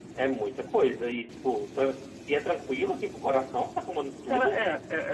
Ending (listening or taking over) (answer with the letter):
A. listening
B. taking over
B